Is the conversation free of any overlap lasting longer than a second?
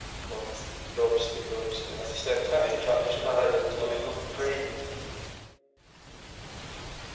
No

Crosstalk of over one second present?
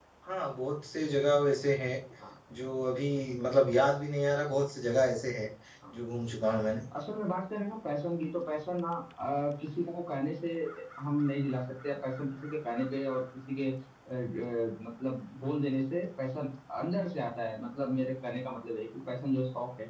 No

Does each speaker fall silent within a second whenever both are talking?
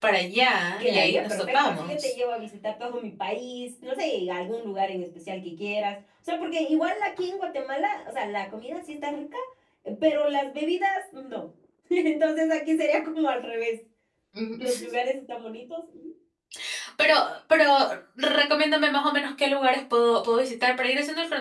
No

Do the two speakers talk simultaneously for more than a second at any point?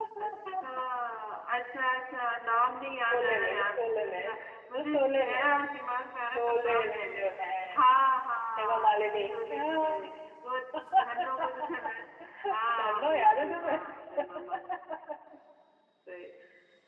Yes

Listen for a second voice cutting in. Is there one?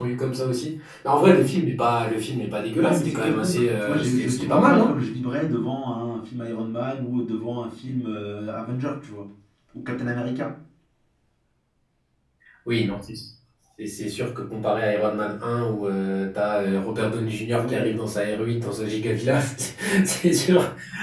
Yes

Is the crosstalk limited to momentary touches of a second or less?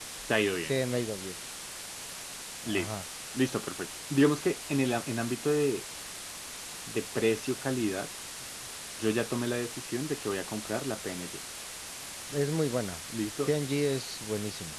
Yes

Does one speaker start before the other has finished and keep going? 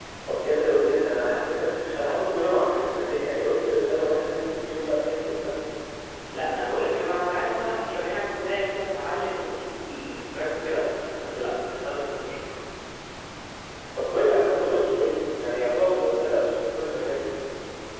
No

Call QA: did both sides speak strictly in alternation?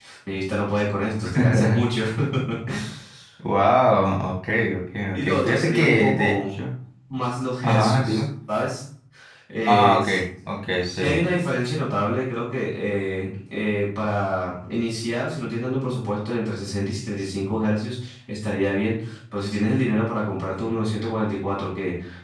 No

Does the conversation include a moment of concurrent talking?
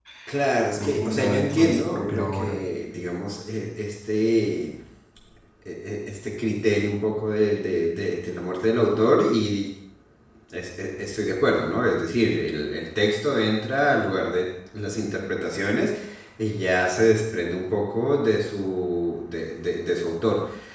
Yes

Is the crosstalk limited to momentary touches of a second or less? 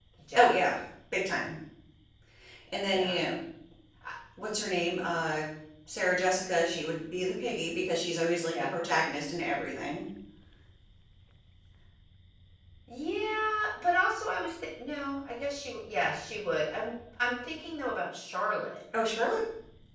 Yes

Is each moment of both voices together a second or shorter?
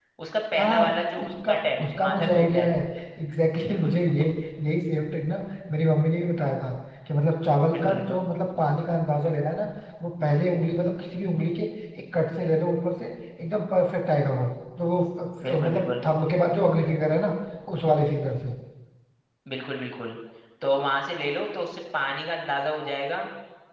No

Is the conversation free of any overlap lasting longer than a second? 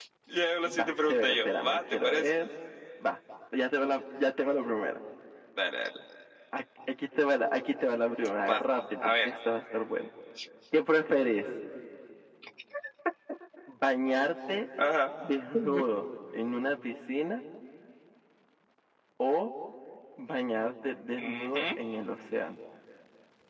No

